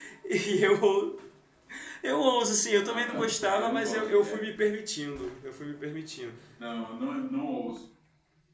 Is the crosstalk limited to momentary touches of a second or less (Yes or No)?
No